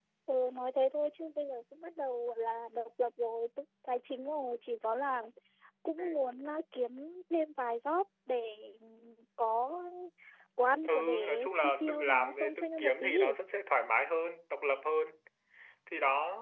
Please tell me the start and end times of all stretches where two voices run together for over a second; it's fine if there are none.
10.9-13.2

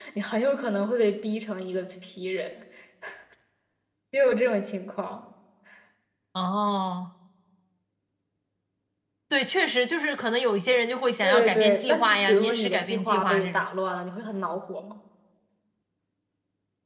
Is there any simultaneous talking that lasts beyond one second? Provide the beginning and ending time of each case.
11.2-13.7

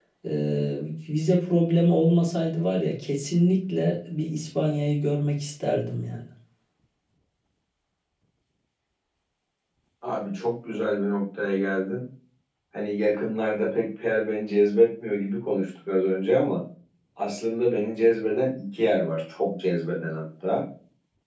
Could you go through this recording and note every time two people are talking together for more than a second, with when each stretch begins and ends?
none

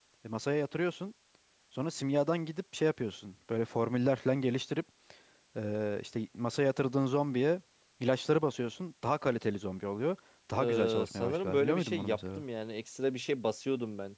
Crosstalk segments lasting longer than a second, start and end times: 10.6-12.4

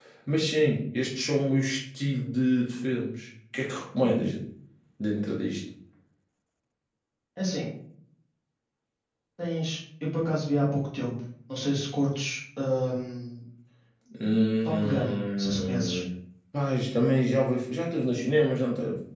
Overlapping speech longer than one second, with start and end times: 14.7-16.0

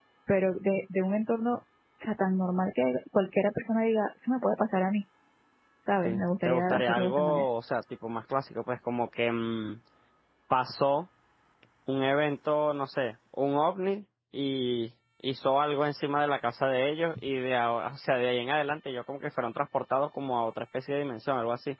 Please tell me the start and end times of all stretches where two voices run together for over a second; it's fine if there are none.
6.0-7.5

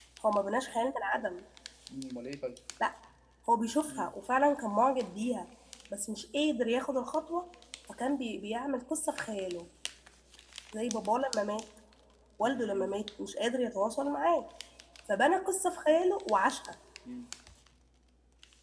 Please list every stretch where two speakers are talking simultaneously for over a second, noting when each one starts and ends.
none

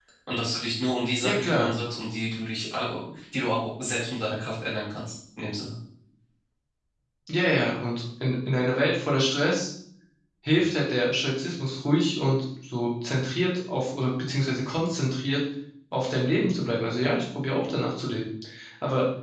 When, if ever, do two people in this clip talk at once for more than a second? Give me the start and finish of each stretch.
none

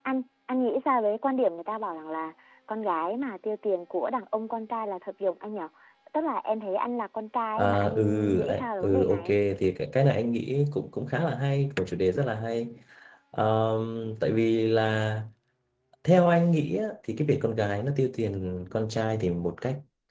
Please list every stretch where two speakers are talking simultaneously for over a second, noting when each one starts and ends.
7.6-9.4

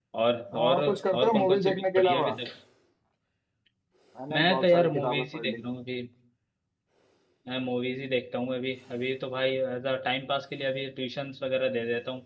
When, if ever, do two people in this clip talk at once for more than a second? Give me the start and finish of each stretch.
0.5-2.4, 4.3-5.6

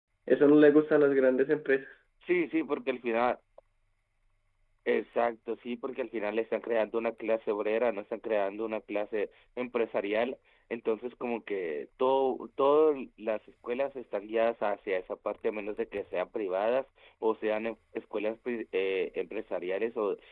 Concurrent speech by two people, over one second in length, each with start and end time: none

